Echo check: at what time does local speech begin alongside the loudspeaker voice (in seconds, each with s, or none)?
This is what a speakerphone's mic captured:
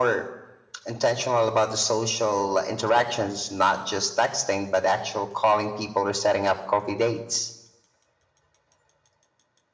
none